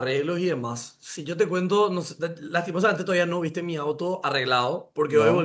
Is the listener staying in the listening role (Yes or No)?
Yes